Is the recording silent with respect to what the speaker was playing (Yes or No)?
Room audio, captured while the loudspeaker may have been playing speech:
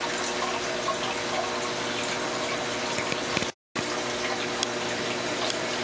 Yes